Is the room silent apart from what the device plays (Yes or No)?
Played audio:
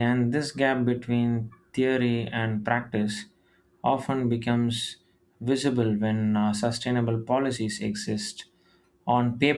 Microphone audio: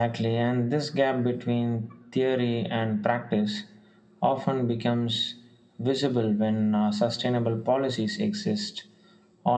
Yes